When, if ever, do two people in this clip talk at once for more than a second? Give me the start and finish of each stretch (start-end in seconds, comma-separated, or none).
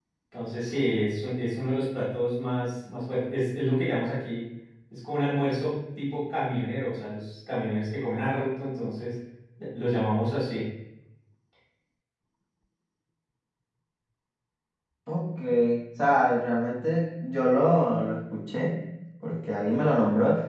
none